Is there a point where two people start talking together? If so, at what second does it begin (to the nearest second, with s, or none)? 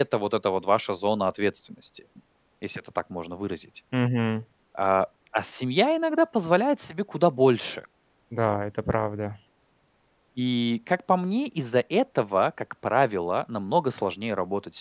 none